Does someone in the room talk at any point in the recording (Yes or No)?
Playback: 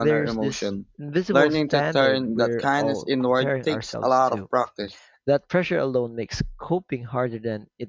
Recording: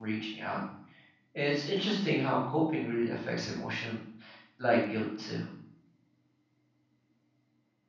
Yes